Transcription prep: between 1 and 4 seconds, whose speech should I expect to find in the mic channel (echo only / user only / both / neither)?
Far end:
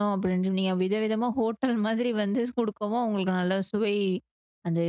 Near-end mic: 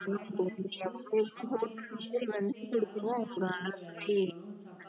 both